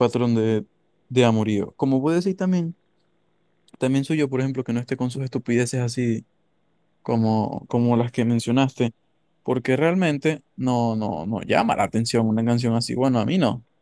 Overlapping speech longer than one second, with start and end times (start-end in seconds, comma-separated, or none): none